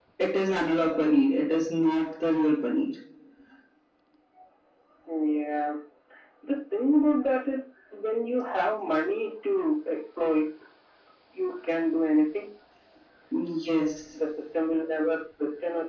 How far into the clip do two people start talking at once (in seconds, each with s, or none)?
none